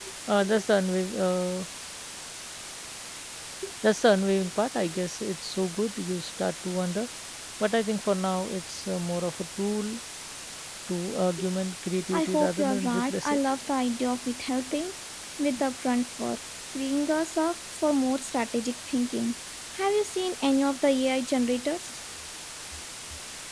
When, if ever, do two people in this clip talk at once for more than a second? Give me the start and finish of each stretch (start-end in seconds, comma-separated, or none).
12.1-13.4